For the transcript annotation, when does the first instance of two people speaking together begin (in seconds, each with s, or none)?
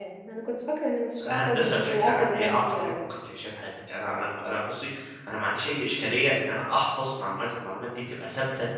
1.2 s